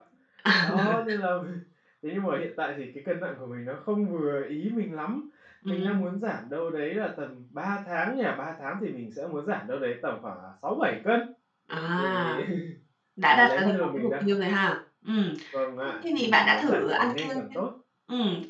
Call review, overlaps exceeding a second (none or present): present